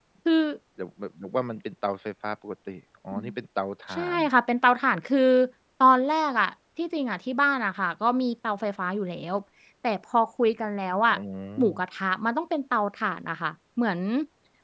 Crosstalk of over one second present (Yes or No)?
No